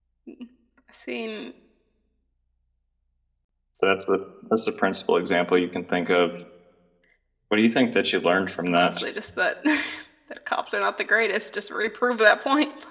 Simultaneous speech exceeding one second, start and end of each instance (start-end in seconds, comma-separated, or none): none